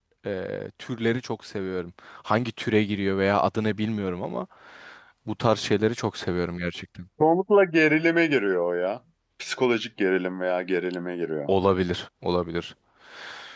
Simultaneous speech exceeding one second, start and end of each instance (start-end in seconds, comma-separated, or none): none